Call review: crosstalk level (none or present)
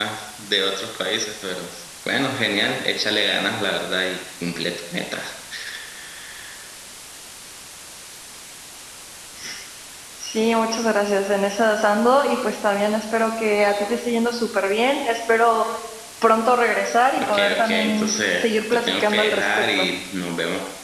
present